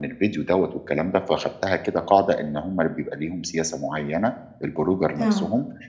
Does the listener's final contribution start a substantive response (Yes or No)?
No